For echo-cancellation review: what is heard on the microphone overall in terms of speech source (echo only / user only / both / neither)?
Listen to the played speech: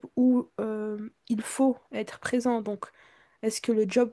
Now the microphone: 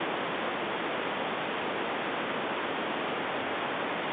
neither